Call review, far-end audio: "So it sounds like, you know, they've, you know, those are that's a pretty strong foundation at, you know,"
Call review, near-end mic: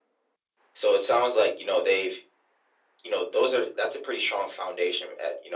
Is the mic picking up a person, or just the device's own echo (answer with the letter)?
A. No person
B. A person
A